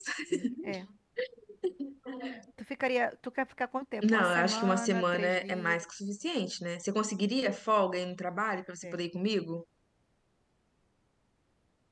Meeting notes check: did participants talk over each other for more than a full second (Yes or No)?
Yes